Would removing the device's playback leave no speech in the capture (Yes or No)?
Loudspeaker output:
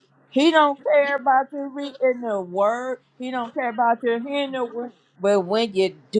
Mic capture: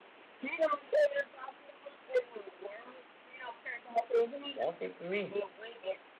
No